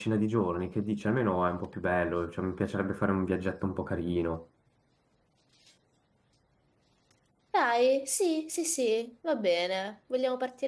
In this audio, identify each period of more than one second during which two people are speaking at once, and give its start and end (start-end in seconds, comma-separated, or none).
none